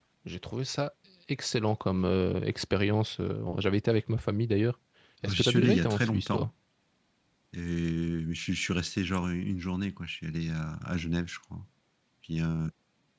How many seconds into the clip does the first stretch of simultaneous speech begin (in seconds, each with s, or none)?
5.2 s